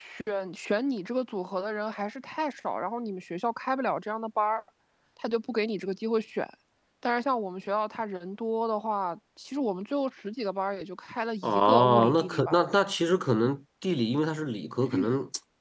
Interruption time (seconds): 11 s

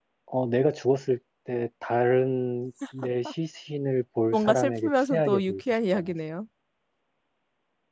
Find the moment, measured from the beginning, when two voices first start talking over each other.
4 s

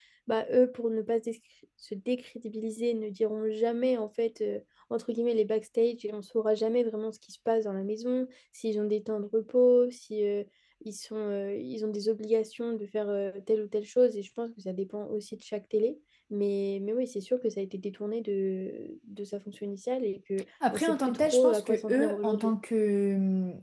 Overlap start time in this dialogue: 21 s

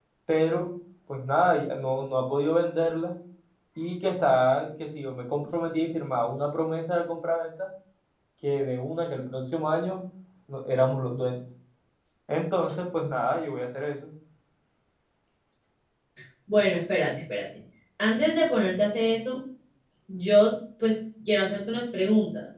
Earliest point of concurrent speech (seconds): none

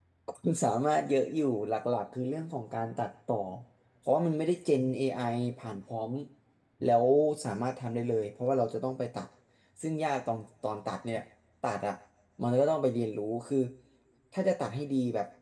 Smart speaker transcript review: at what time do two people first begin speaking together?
none

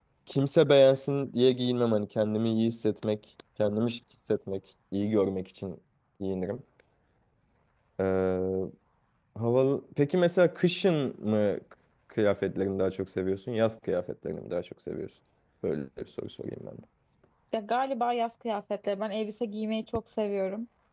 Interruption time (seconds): none

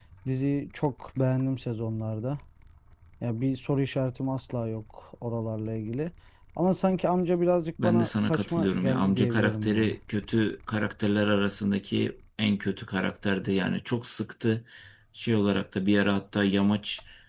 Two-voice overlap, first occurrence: 8 s

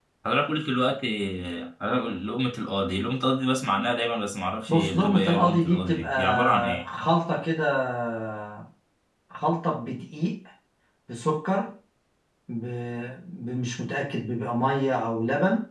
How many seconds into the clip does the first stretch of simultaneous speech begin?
5 s

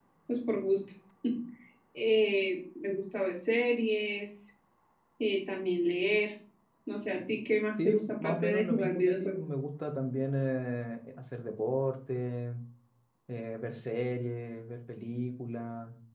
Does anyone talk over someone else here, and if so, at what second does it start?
8 s

